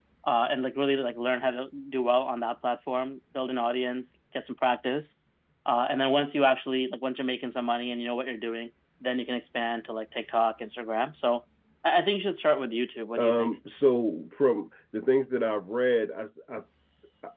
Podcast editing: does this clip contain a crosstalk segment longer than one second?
No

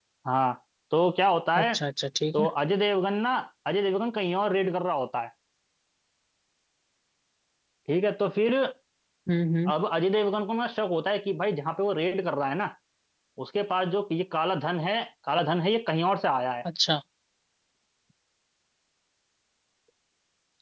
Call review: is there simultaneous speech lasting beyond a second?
No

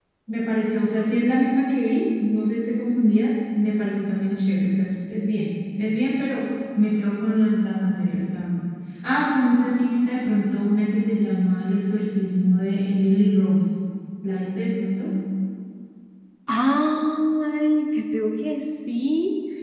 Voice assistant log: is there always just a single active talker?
Yes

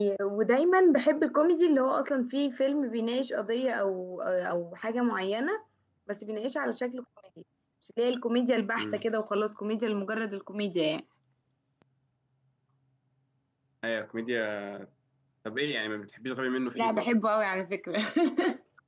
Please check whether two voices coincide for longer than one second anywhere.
No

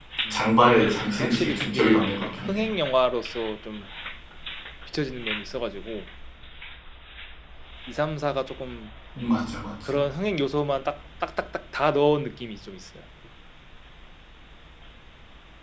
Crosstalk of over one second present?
Yes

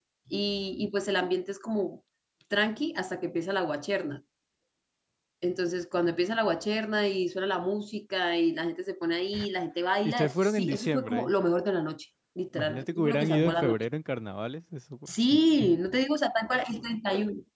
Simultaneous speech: Yes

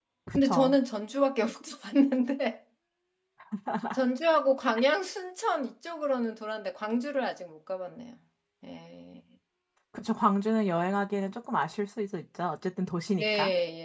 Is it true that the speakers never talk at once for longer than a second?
Yes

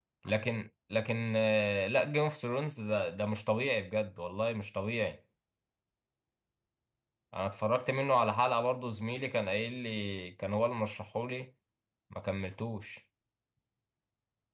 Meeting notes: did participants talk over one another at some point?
No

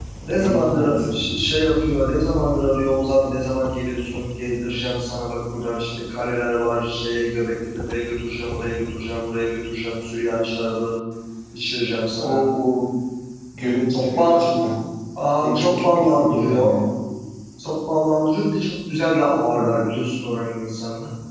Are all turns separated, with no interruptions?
No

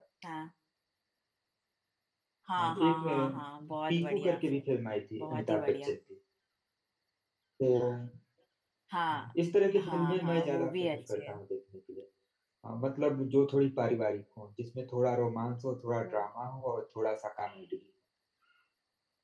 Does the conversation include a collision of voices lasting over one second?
Yes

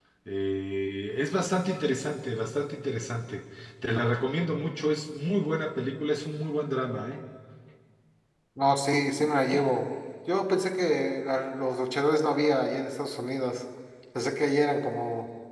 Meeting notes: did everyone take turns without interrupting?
Yes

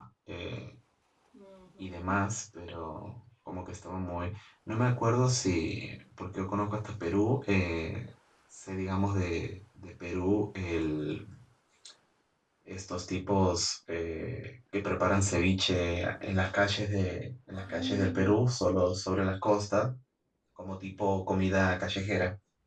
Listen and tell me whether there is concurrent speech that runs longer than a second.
Yes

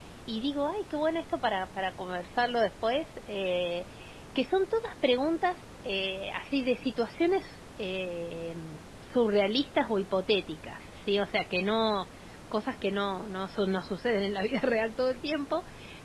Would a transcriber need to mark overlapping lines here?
No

